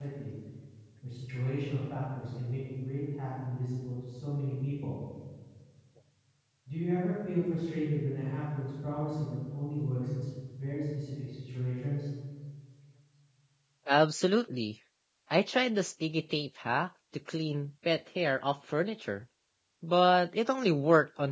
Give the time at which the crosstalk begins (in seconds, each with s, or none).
none